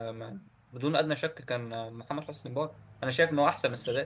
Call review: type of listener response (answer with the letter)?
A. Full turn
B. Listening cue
B